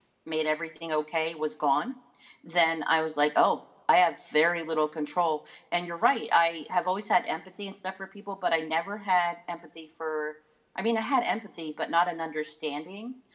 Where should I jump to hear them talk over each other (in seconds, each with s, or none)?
none